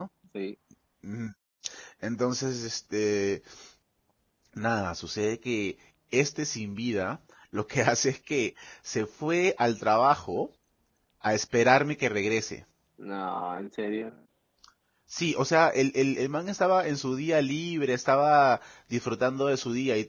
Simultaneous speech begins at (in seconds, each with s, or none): none